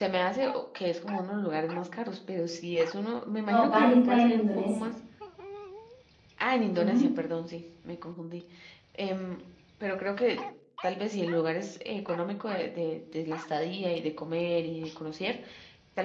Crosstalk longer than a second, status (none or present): present